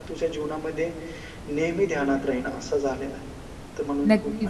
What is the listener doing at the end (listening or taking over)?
taking over